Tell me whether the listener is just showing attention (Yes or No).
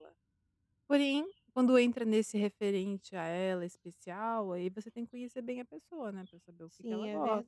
No